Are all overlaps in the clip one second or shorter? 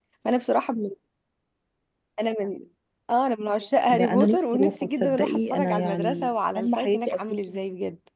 No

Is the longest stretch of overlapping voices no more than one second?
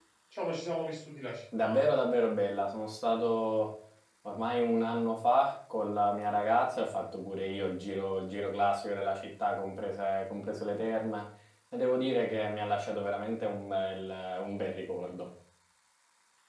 Yes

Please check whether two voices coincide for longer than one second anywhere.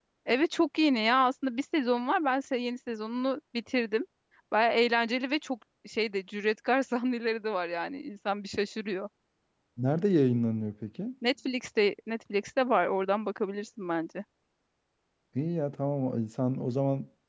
No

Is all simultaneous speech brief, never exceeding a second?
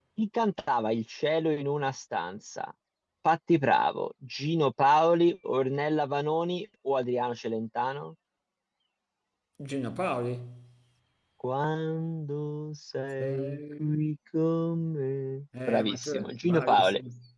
No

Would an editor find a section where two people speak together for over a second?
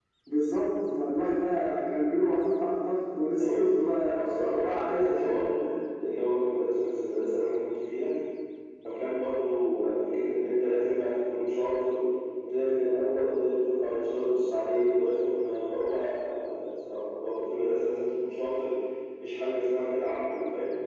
Yes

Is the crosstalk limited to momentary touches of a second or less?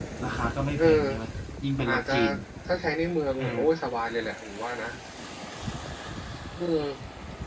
Yes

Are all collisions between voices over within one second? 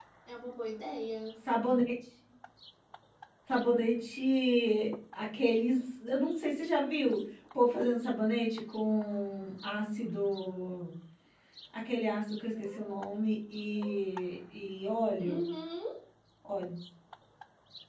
Yes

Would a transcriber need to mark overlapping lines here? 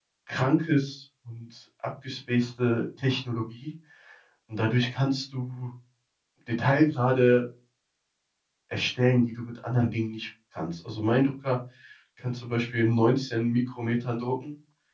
No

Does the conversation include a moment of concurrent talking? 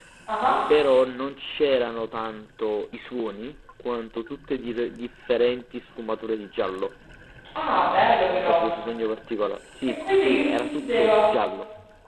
Yes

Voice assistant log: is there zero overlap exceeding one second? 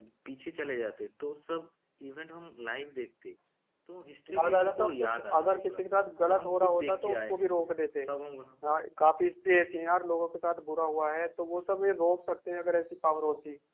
No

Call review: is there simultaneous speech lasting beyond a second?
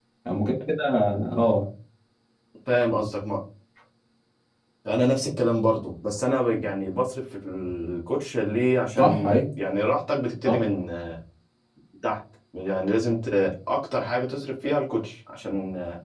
No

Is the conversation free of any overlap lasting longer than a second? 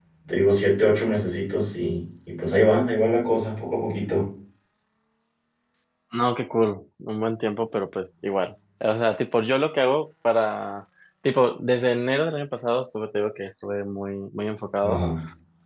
Yes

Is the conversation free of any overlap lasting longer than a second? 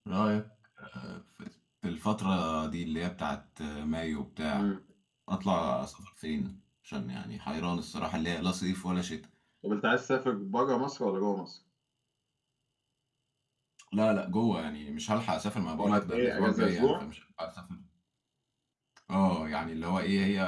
No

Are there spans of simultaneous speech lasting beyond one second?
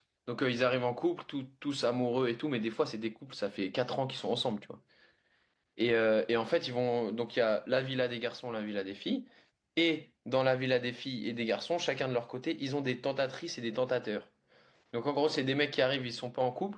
No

